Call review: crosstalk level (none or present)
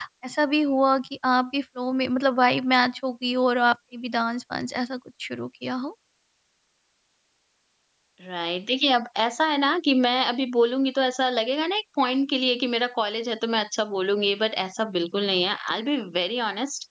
none